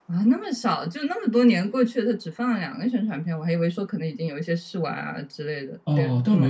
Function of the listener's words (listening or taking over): taking over